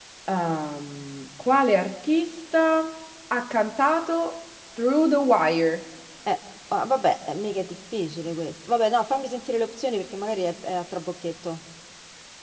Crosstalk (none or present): none